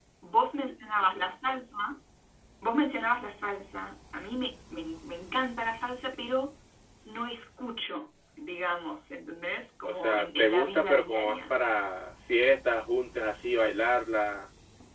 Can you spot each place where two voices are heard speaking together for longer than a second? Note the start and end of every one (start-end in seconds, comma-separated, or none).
9.8-11.5